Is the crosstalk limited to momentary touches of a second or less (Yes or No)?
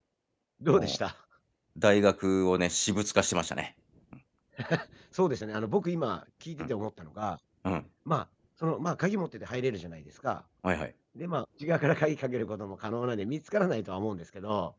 Yes